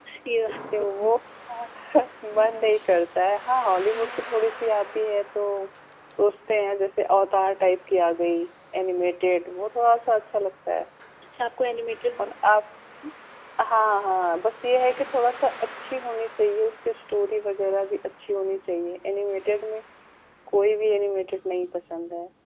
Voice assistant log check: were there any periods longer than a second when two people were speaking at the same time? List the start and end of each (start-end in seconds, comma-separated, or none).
none